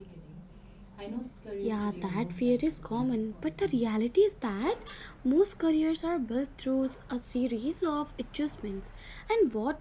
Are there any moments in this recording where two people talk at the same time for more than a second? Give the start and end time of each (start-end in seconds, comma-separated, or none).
1.6-3.8